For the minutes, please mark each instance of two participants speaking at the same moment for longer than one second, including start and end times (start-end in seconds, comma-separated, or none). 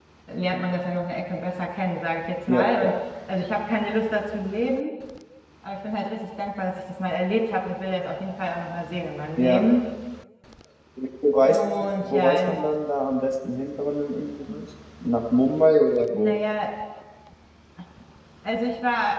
11.4-12.6